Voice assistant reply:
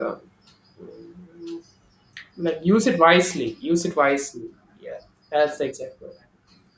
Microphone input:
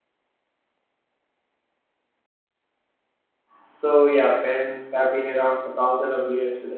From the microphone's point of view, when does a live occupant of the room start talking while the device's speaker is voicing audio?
3.6 s

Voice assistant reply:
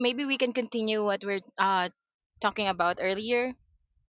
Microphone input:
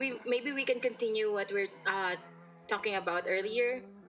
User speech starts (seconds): none

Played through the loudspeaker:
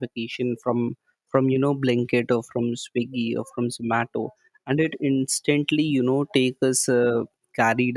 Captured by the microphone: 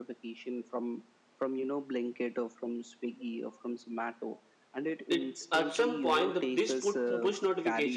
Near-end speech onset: 5.1 s

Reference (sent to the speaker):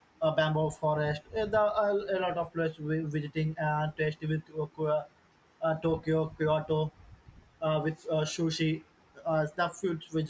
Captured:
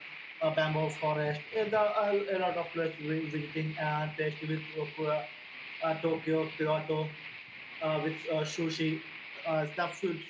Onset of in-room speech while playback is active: none

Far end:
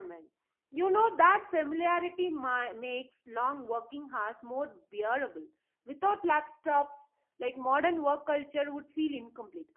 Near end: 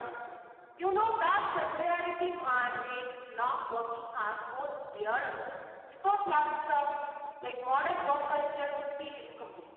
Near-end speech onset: none

